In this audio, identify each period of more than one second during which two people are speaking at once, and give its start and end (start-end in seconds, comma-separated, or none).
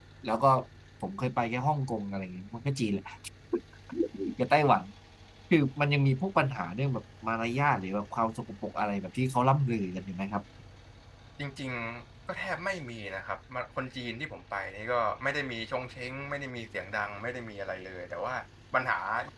none